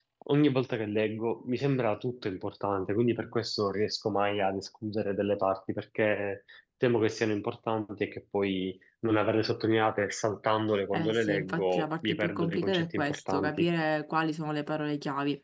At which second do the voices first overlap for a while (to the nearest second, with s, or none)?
11 s